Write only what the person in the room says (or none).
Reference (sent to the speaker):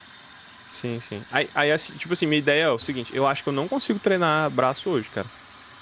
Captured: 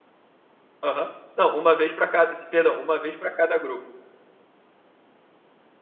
Aham. Não, uma vez pra cada. Perdão, uma vez pra cada grupo.